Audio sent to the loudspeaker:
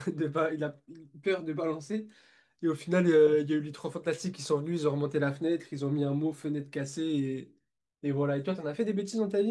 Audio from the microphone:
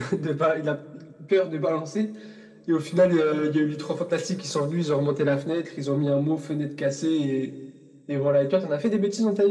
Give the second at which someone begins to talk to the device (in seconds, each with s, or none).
none